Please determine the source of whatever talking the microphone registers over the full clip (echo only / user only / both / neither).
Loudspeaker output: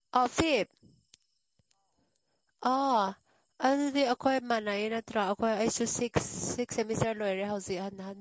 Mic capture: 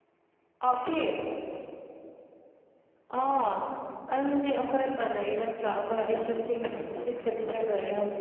echo only